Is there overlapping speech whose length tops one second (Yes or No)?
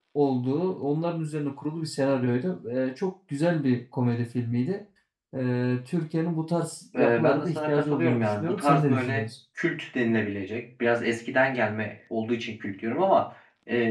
Yes